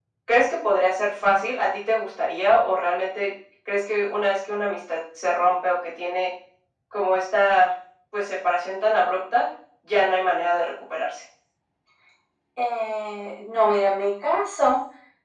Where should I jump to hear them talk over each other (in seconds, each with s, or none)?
none